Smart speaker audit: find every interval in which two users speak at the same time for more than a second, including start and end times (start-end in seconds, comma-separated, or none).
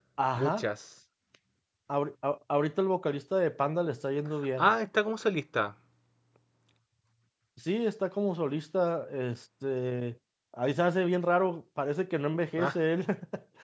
none